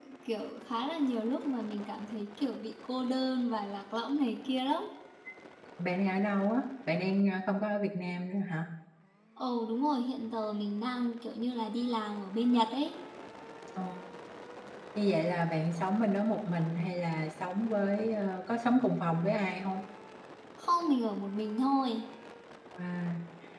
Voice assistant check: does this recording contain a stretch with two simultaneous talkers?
No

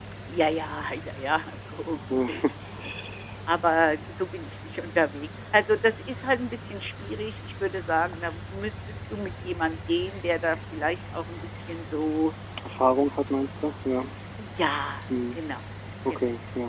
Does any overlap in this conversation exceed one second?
No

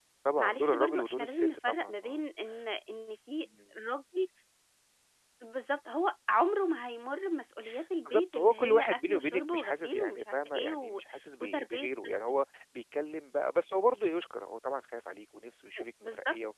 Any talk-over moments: Yes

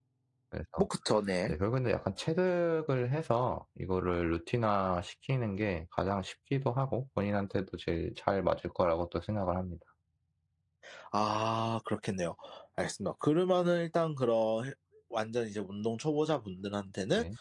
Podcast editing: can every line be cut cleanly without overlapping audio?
Yes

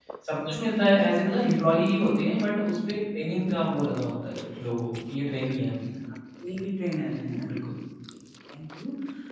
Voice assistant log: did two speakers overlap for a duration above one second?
No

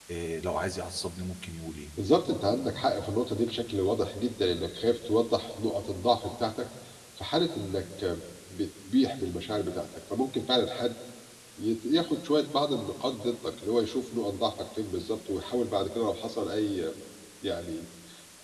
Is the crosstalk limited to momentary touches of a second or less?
Yes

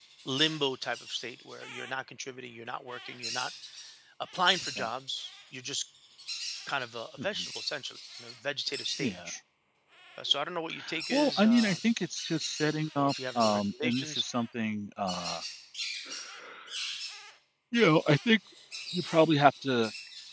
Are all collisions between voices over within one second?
No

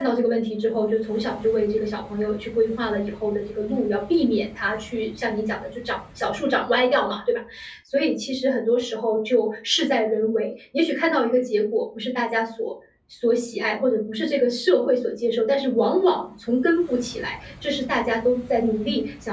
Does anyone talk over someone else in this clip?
No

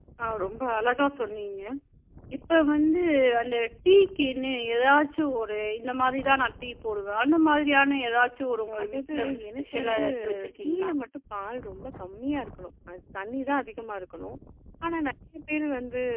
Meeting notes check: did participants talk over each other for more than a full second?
Yes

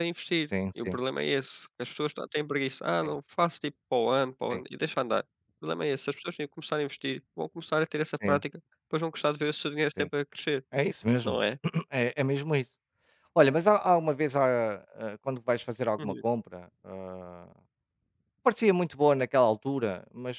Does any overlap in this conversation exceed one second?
No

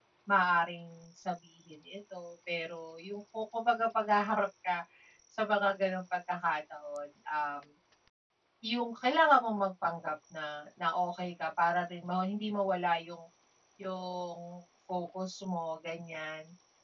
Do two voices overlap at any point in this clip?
No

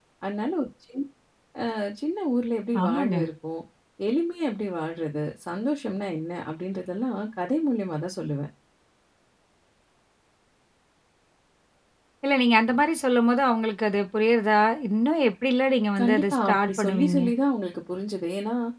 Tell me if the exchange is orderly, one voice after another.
No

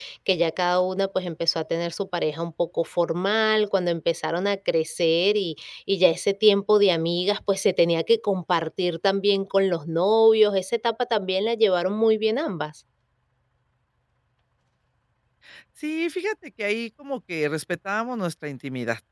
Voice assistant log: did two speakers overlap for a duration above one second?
No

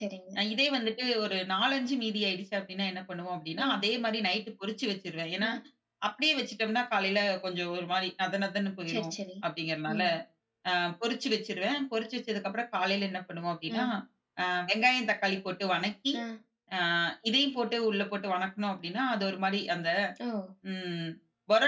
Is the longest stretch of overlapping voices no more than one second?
Yes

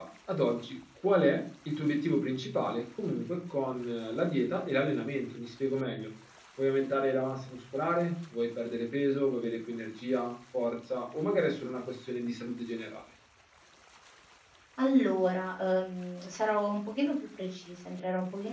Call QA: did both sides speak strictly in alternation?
Yes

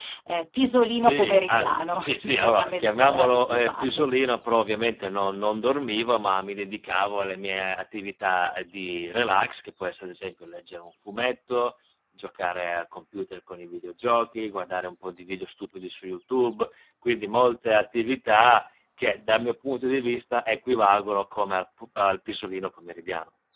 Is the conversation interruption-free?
No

